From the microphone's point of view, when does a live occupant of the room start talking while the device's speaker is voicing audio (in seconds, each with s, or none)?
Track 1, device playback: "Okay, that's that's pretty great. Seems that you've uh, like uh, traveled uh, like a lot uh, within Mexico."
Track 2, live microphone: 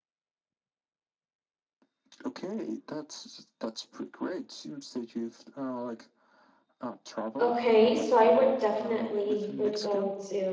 7.4 s